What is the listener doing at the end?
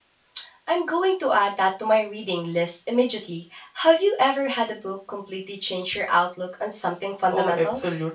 taking over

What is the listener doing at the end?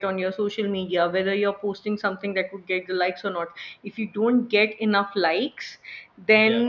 listening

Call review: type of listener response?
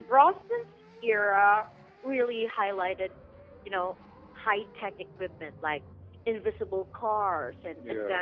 listening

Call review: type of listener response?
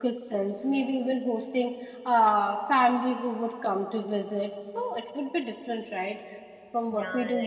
listening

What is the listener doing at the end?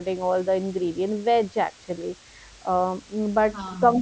listening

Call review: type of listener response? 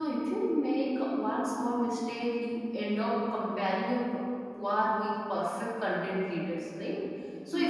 listening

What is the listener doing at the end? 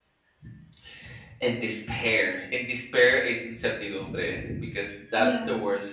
listening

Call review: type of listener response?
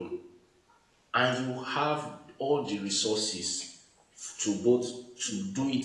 listening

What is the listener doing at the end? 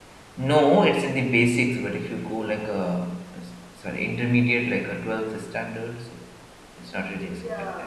taking over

